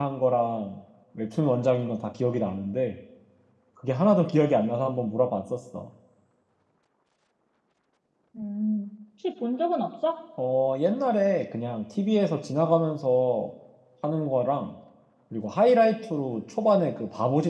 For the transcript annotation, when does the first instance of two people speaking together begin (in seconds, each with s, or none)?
none